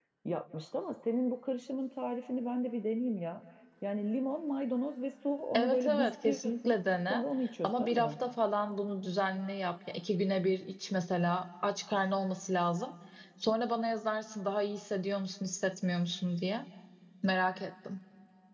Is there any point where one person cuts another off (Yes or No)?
Yes